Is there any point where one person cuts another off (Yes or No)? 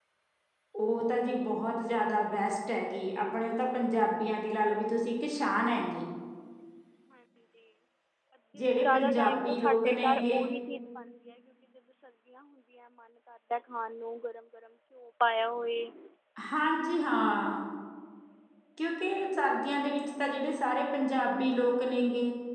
Yes